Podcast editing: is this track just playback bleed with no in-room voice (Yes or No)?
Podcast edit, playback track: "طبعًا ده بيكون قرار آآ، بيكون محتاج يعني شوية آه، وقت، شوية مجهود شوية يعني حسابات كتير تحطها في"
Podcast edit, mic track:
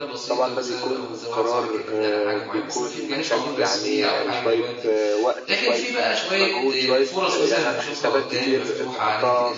No